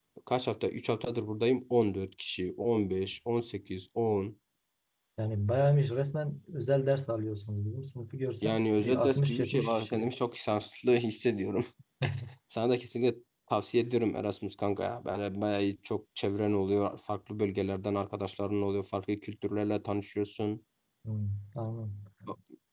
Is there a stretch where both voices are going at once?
Yes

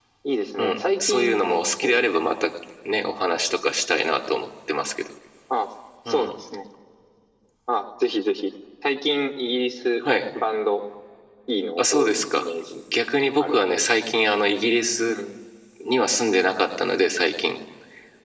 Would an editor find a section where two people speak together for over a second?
Yes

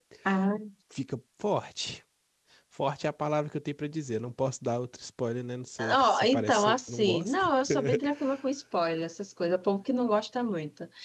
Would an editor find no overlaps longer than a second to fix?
No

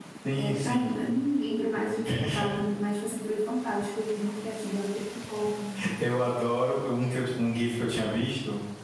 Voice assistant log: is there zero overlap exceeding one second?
Yes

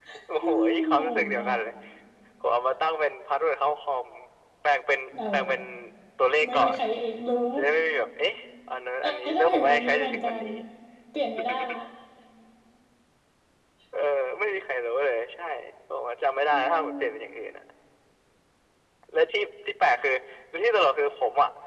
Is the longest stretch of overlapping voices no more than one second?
No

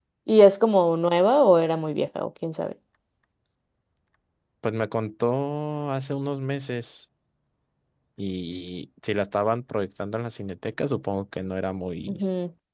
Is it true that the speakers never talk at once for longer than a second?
Yes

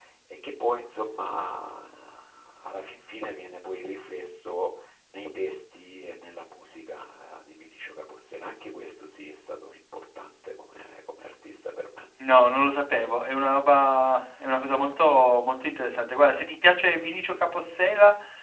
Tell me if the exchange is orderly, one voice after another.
Yes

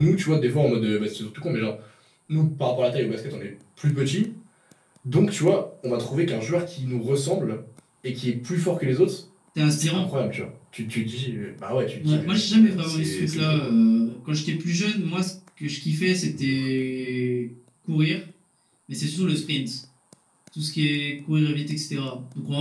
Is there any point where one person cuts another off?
Yes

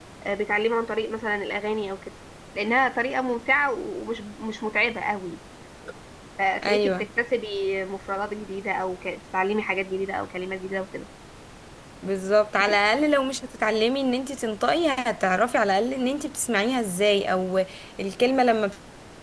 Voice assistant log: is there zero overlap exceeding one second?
Yes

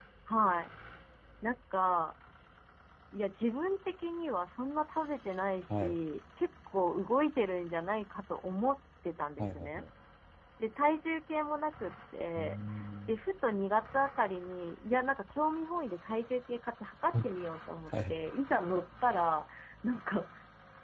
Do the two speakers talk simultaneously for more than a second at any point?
No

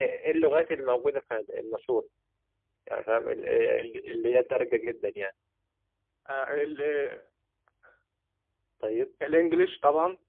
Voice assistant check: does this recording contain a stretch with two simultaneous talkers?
No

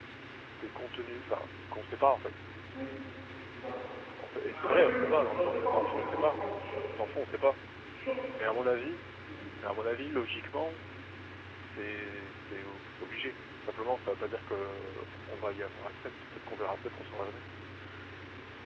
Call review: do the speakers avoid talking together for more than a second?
No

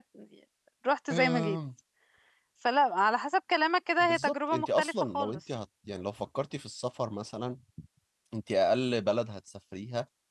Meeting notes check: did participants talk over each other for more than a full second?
Yes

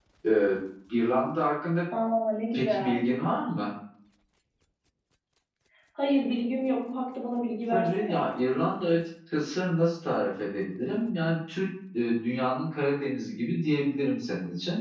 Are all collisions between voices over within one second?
Yes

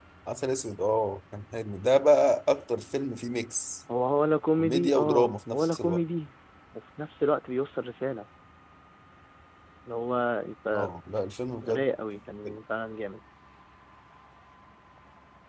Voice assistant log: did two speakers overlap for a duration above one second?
Yes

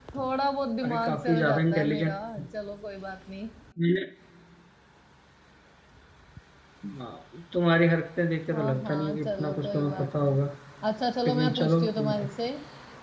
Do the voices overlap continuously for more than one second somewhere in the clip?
Yes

